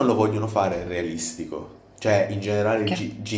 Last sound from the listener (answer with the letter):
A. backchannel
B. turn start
A